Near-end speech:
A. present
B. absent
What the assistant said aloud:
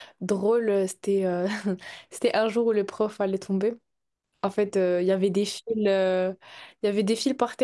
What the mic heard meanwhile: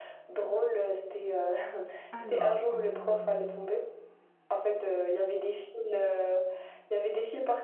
A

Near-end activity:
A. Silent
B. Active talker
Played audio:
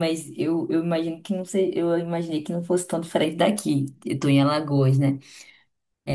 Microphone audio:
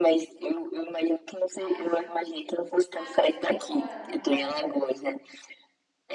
B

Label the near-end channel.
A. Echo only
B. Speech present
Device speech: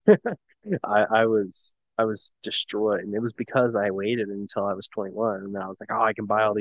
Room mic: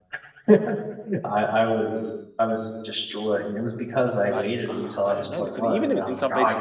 B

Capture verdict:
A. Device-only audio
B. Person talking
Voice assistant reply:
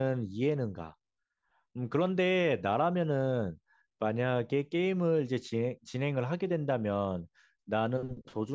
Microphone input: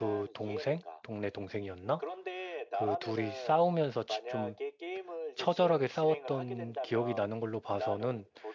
B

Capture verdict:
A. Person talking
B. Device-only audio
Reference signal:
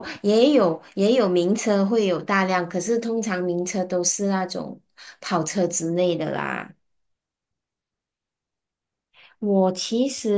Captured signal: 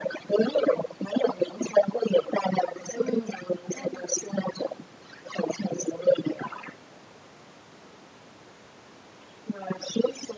A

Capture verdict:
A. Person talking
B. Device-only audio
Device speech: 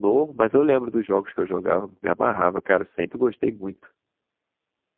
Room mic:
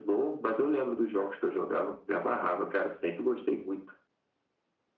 B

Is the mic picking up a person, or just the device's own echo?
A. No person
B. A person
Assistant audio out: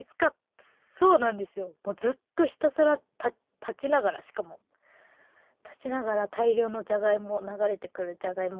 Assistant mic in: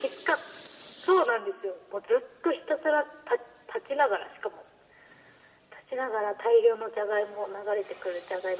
A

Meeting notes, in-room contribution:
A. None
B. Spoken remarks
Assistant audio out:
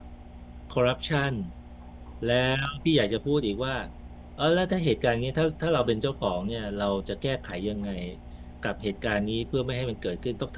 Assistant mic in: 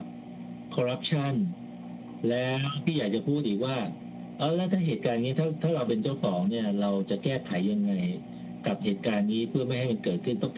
A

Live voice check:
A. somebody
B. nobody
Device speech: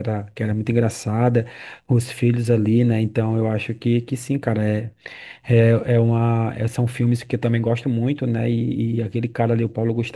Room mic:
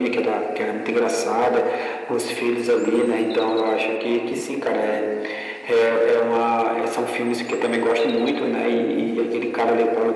B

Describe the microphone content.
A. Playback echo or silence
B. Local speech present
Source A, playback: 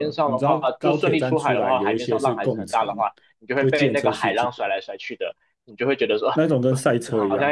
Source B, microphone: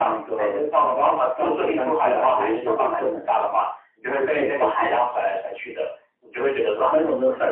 A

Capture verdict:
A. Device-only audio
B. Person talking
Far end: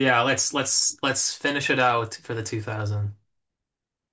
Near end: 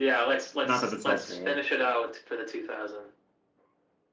B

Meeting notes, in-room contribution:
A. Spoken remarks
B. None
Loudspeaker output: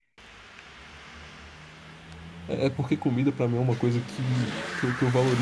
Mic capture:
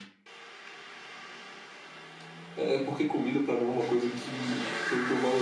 B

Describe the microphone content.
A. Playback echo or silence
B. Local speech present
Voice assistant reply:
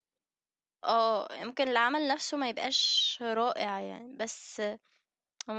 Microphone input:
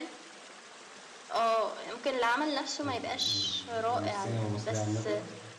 B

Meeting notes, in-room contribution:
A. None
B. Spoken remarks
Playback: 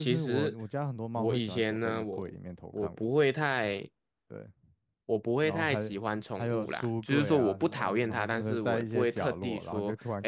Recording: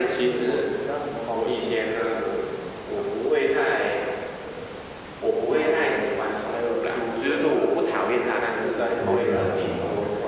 B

